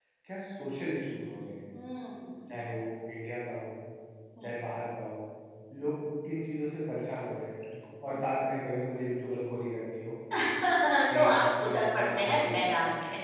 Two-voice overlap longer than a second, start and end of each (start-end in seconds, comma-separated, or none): 11.1-12.5